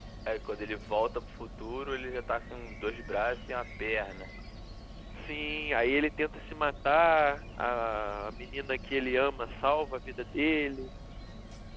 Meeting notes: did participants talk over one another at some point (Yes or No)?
No